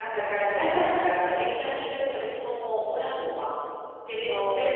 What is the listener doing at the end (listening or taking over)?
taking over